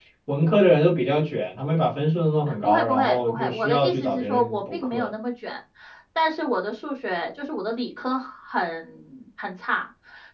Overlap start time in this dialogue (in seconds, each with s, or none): 2.5 s